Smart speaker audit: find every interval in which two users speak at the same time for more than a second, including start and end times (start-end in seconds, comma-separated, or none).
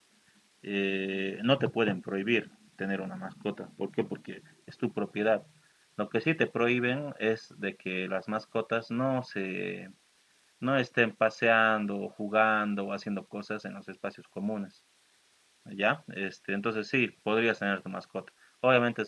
none